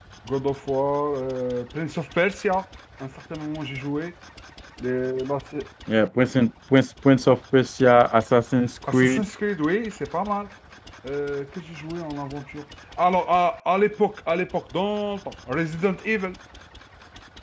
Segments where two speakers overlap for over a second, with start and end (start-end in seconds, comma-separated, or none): none